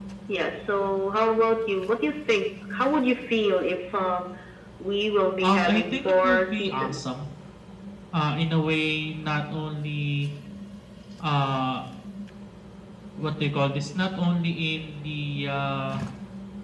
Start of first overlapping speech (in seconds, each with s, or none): 5.4 s